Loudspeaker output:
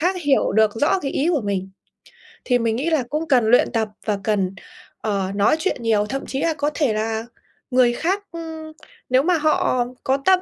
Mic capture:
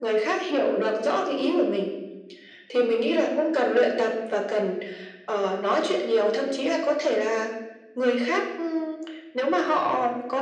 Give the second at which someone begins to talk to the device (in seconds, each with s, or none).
none